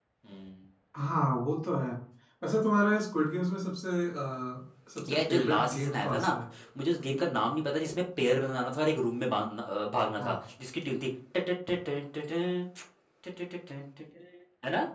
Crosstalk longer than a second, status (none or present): present